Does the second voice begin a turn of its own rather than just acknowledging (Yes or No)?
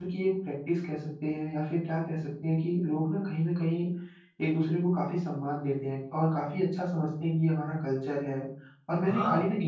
No